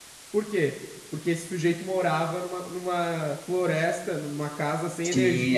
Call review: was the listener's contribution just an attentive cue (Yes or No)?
No